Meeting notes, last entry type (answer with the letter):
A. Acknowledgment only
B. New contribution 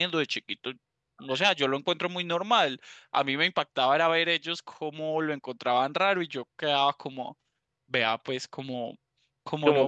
B